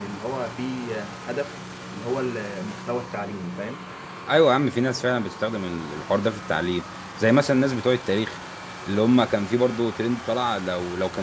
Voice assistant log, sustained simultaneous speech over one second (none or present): none